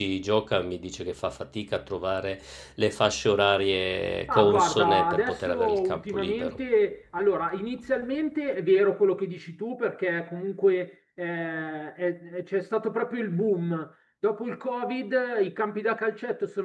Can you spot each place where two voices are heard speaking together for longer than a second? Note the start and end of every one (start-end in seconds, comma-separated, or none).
4.3-6.6